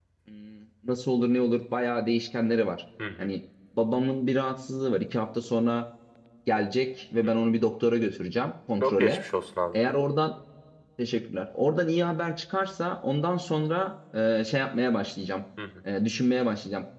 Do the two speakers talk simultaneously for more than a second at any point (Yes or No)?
No